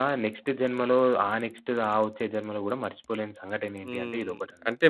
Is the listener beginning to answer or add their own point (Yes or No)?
Yes